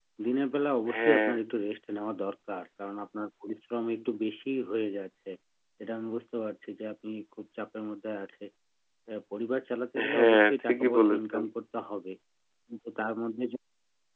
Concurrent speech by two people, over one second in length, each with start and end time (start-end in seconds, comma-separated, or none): 10.1-11.4